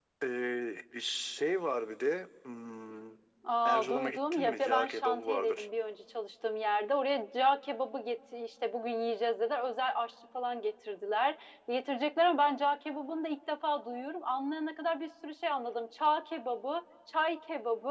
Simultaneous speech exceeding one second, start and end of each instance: 3.6-5.7

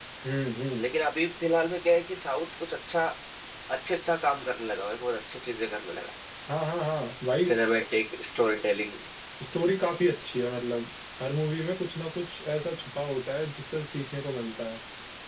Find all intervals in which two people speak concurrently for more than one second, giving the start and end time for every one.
none

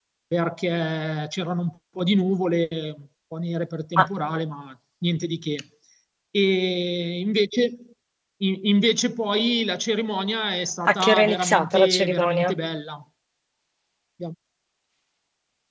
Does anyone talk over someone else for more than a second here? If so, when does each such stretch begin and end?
10.9-12.5

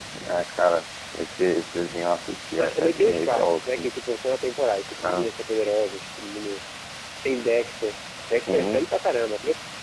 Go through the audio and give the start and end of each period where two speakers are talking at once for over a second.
2.6-3.9

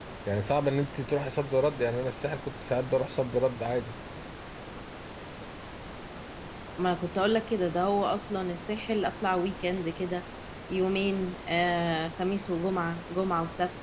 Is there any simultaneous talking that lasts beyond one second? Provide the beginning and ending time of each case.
none

